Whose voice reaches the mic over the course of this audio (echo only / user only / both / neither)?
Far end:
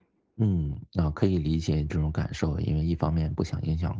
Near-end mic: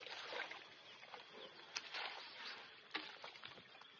neither